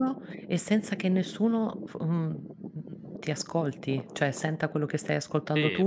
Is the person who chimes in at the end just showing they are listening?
No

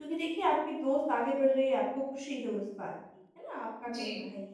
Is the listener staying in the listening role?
Yes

